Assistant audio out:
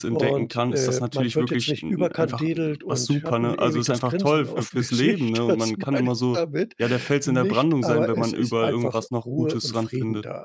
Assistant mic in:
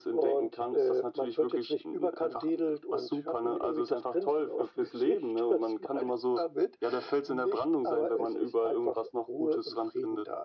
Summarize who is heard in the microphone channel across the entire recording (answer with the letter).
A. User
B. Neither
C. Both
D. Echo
D